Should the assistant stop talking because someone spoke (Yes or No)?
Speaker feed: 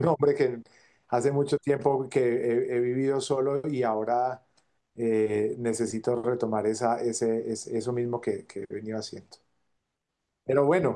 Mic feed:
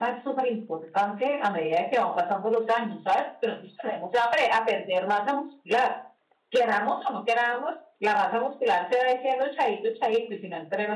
Yes